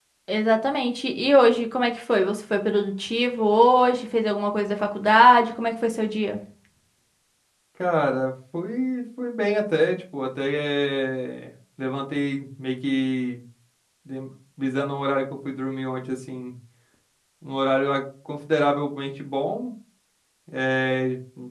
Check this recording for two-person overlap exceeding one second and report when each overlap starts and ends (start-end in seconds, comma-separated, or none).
none